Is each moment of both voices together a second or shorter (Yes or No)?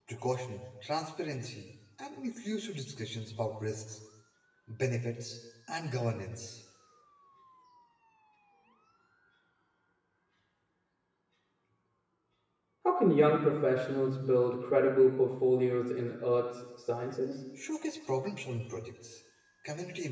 Yes